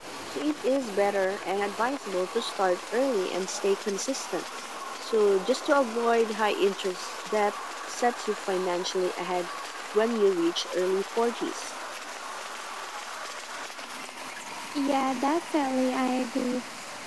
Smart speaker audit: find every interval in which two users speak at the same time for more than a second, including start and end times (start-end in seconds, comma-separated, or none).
none